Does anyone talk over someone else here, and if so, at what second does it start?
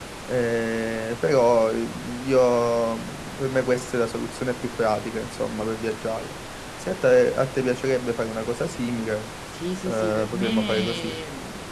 9.8 s

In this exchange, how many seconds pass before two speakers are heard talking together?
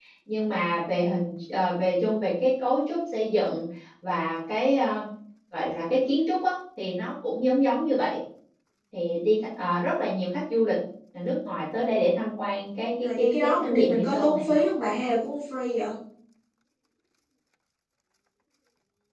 13.0 s

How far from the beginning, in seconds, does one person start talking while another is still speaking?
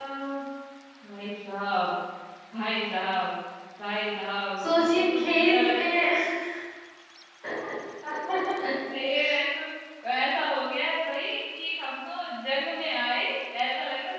4.7 s

